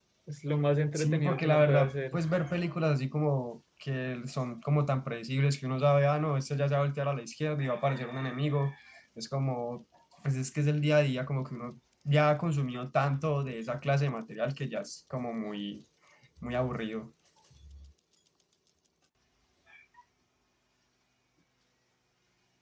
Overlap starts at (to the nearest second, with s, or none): 1 s